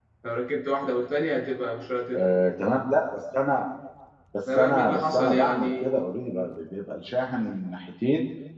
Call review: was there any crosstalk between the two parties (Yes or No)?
Yes